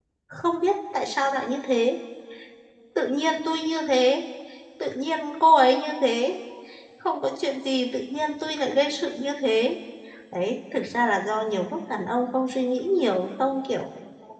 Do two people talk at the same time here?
No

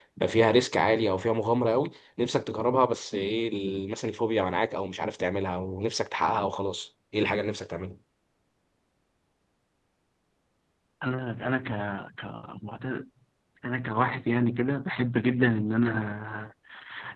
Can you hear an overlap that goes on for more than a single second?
No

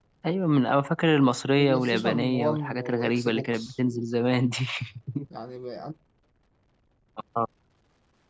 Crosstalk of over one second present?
Yes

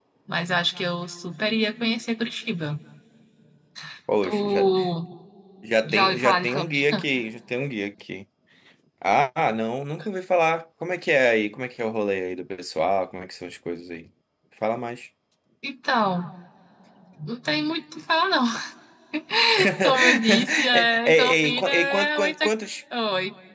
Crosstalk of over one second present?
Yes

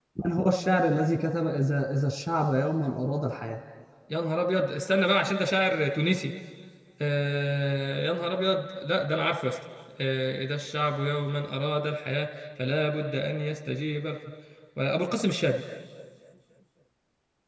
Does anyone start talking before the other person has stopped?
No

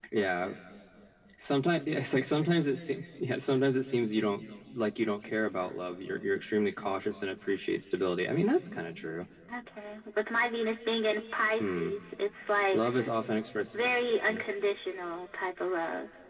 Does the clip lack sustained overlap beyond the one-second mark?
Yes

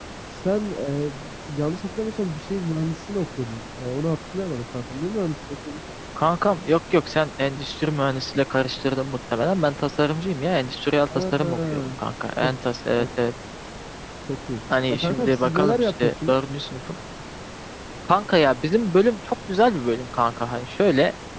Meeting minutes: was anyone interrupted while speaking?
Yes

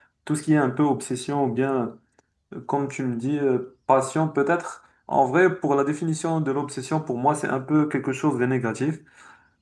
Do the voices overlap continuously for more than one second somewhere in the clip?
No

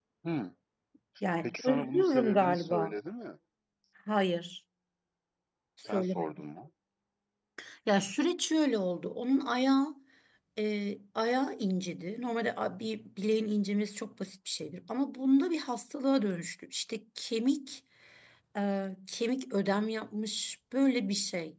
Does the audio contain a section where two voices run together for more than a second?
Yes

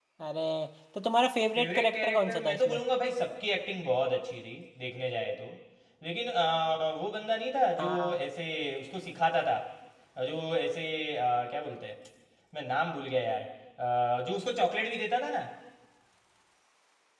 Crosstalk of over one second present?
Yes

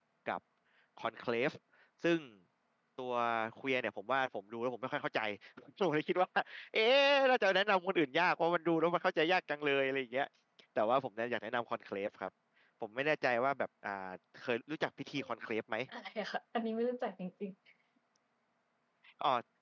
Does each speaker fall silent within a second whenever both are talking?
Yes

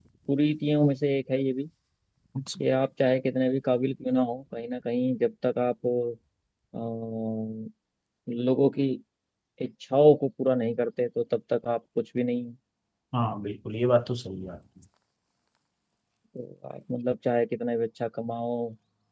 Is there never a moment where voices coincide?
Yes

